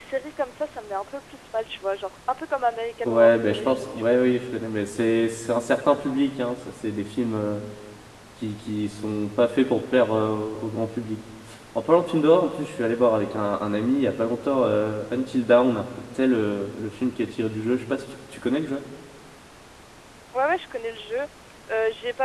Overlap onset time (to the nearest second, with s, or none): 3 s